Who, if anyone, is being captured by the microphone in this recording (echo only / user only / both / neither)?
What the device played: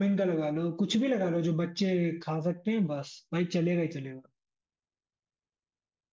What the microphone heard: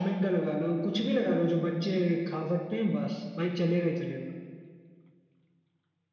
echo only